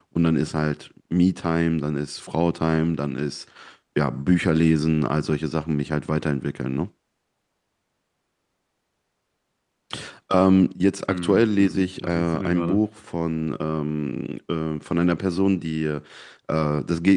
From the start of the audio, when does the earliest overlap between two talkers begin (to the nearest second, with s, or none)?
11 s